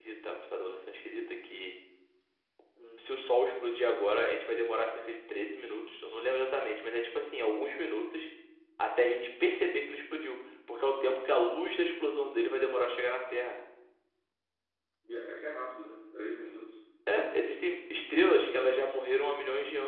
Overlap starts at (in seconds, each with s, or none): none